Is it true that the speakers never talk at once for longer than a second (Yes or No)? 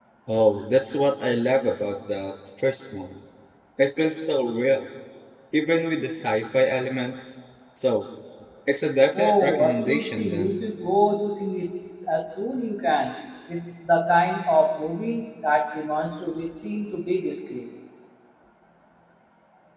No